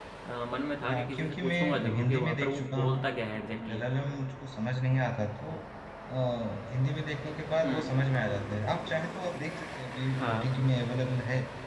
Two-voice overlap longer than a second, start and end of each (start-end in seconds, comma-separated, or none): 0.9-3.0